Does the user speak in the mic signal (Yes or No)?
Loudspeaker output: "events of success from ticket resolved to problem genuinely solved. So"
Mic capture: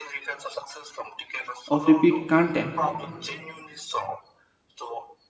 Yes